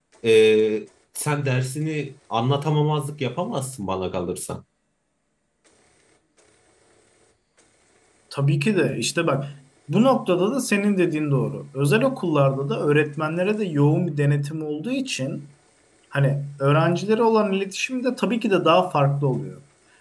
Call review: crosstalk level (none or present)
none